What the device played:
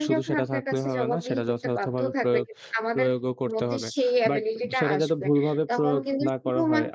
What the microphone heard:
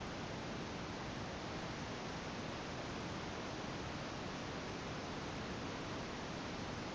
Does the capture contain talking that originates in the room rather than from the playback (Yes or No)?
No